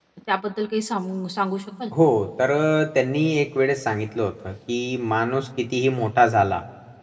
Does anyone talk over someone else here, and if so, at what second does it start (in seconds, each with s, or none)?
none